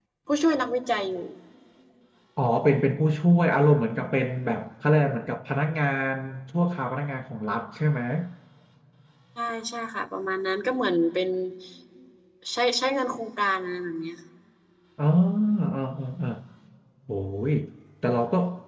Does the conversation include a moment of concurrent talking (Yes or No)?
No